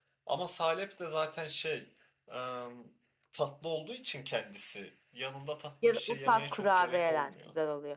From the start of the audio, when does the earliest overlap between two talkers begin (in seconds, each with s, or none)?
5.8 s